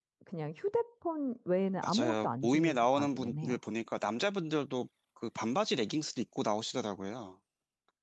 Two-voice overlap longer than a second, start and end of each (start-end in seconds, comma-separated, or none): 1.8-3.6